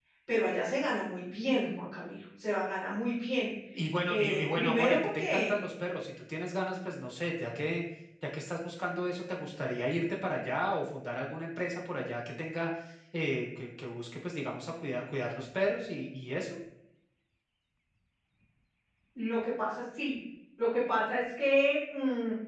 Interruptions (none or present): present